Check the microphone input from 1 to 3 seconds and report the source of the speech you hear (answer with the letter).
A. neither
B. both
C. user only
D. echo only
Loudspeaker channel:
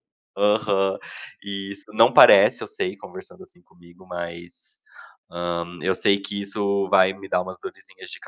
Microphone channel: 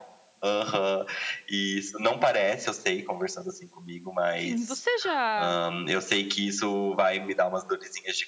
D